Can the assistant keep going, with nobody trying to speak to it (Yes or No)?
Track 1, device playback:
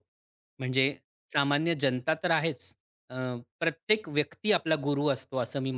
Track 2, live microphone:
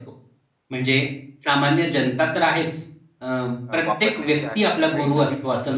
No